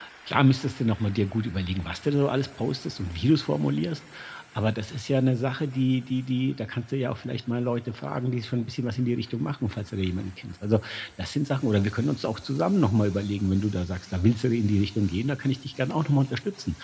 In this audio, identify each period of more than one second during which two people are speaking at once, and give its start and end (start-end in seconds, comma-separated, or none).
none